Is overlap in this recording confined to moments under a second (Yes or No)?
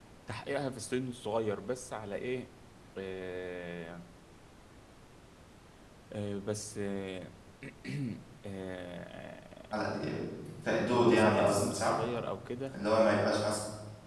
No